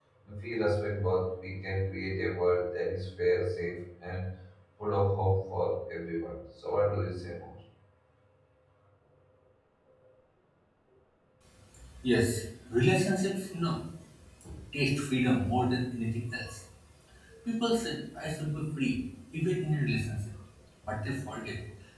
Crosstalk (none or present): none